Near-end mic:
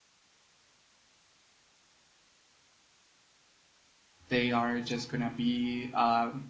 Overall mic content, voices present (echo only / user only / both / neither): user only